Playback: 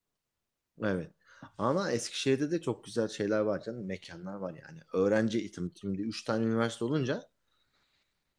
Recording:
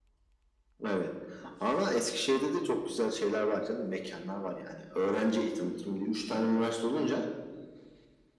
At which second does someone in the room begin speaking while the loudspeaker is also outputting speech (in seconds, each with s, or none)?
none